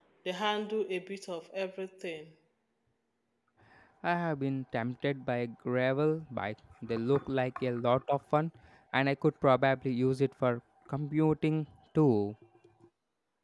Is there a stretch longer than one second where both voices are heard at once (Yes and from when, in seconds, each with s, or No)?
No